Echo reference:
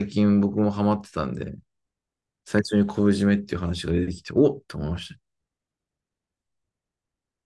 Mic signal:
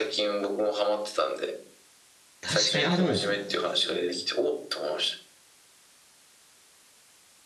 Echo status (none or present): present